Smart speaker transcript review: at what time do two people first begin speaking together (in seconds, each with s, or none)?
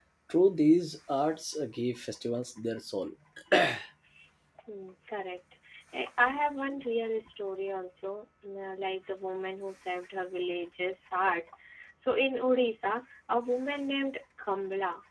none